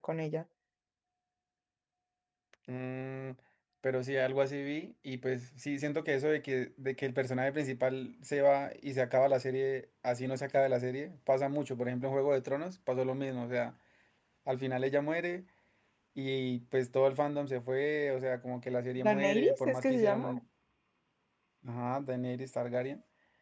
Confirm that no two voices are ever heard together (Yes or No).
No